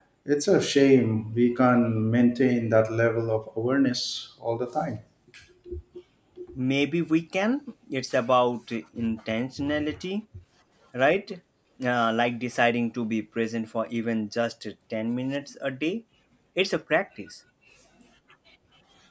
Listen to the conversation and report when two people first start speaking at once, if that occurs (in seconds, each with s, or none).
none